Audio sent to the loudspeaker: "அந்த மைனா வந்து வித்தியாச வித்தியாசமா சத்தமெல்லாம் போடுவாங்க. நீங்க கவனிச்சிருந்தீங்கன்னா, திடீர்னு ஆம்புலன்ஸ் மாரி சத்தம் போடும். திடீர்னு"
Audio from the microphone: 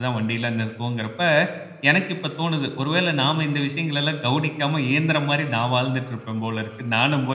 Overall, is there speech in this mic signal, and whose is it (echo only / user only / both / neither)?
user only